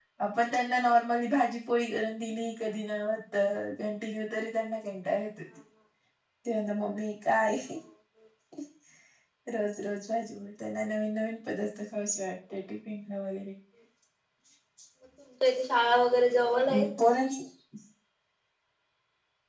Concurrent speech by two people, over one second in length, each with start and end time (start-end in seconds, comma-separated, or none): none